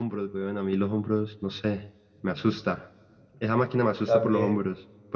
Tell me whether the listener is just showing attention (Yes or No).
Yes